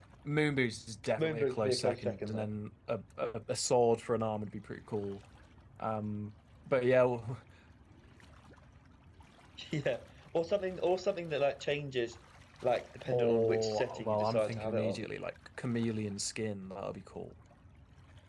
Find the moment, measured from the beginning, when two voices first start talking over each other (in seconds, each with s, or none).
1.2 s